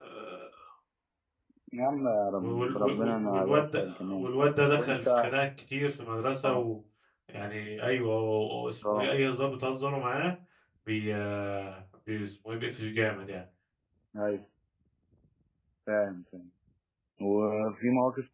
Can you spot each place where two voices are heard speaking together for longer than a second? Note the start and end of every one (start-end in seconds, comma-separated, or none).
2.4-5.3